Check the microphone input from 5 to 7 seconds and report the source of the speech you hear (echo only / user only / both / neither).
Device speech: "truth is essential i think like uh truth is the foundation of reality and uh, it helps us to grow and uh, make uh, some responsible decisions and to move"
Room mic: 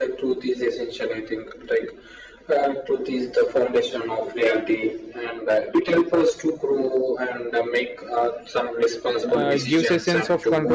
echo only